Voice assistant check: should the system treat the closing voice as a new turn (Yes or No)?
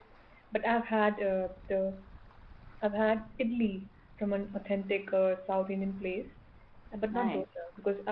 No